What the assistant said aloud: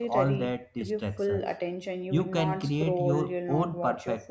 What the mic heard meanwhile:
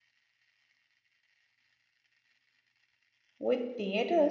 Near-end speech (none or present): present